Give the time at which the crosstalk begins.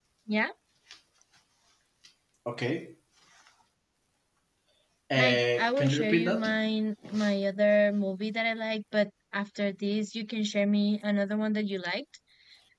5.2 s

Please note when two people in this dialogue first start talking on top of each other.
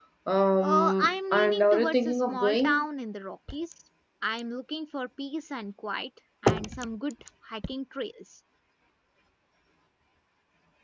0.6 s

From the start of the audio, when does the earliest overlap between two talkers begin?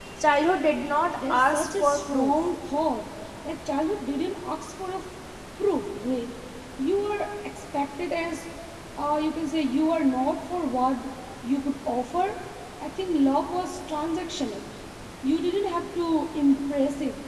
1.2 s

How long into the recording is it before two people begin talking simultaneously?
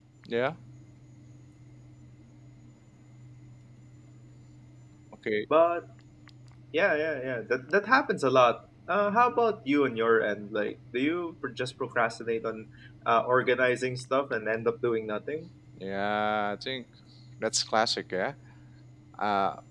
none

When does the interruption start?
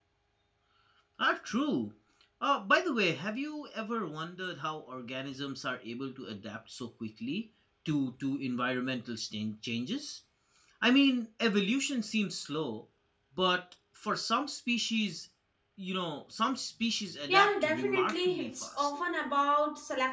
17.3 s

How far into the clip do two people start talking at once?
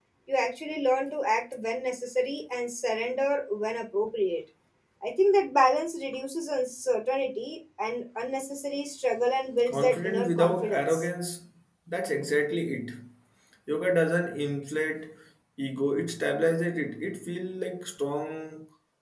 9.7 s

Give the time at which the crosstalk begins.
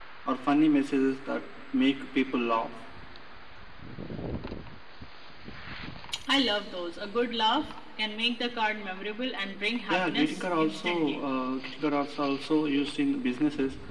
9.9 s

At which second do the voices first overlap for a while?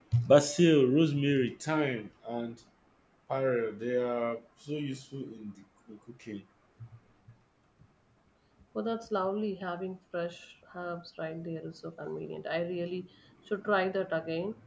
none

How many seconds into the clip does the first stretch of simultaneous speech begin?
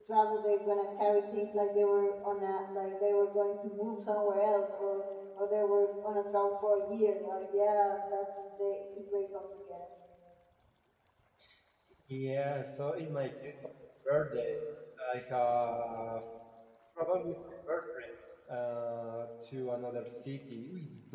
none

